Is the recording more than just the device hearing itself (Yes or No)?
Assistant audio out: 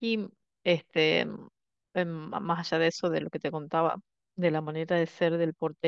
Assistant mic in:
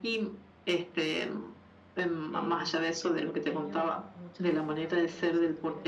Yes